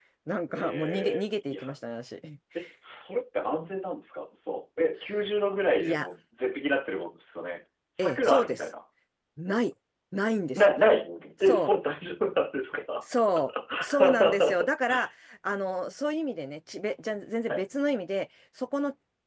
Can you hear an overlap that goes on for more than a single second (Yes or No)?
Yes